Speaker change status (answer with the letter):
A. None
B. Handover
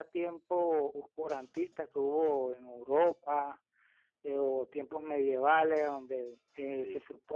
A